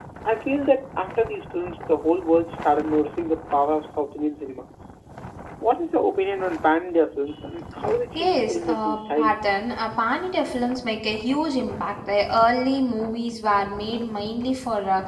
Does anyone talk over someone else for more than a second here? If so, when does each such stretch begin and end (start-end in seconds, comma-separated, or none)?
8.2-9.4